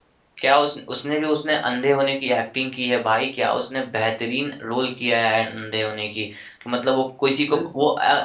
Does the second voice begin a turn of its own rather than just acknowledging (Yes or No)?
No